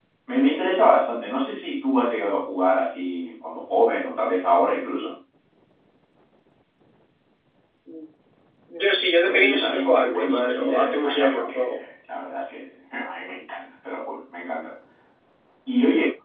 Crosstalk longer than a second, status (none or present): present